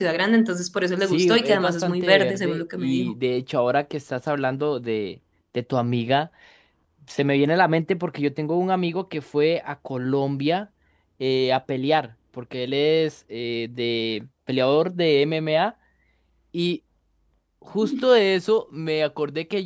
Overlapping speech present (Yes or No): Yes